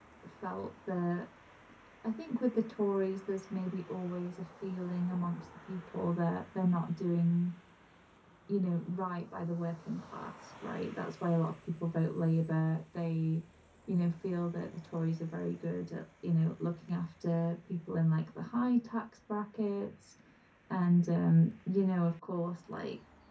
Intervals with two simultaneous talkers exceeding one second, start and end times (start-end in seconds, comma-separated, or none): none